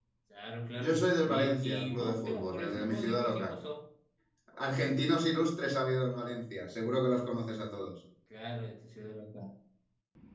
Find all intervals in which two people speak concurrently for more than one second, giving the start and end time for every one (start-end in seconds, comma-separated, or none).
0.8-3.6